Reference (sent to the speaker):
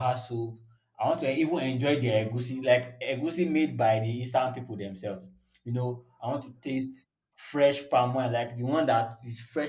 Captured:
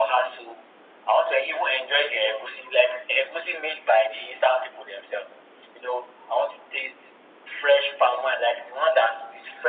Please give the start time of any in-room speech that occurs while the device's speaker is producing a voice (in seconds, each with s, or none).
none